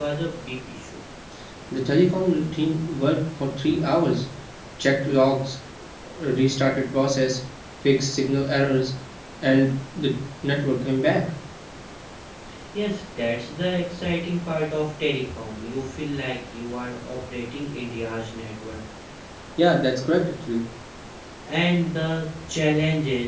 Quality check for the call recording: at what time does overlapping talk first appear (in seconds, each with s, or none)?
none